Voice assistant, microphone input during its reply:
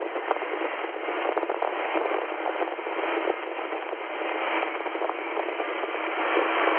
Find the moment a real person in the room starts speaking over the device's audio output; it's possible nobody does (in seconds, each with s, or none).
none